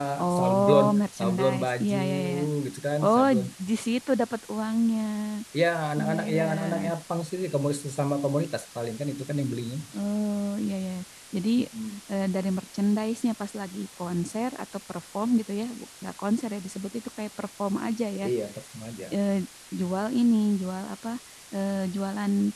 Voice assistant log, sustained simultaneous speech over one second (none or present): present